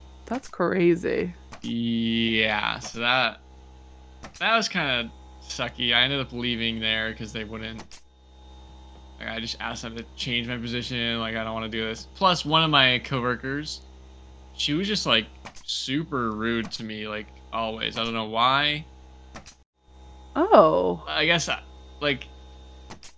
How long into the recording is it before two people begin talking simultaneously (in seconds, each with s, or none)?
none